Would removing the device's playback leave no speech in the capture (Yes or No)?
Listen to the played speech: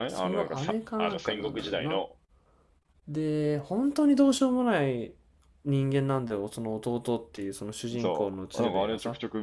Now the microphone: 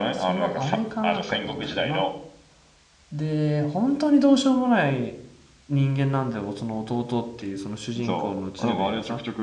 Yes